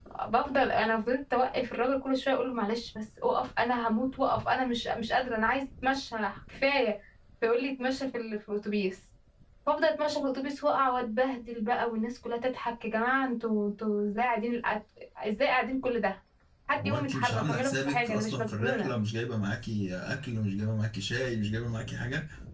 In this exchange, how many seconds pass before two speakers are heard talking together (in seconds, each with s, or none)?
16.8 s